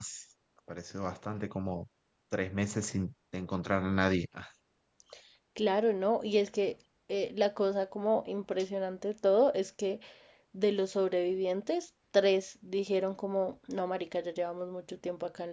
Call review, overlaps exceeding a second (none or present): none